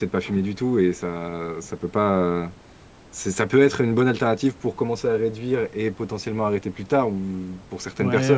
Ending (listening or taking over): listening